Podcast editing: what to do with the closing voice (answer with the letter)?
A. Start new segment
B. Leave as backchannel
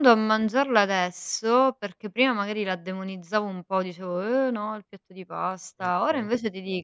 B